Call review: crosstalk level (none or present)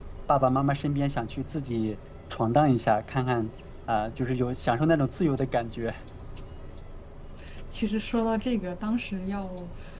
none